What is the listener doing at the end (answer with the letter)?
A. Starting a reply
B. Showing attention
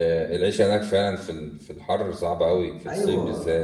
A